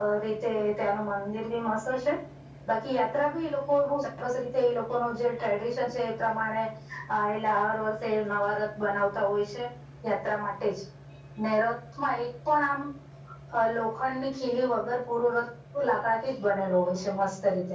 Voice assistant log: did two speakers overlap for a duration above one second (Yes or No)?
No